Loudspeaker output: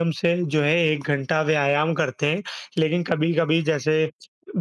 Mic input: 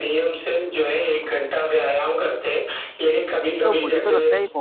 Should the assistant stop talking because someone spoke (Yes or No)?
Yes